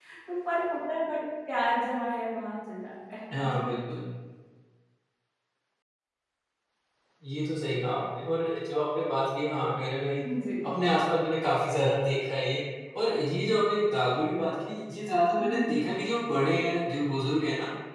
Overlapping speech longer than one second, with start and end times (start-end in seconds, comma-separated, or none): none